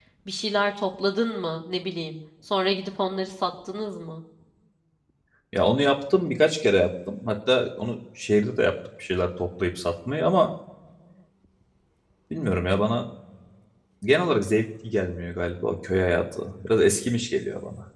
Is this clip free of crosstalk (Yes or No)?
Yes